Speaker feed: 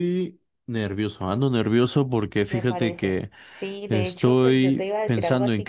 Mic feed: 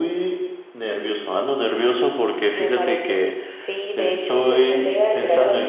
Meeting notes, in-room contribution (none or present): none